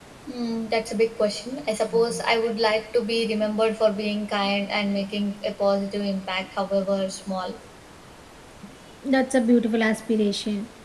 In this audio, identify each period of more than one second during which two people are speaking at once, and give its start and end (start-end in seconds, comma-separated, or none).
none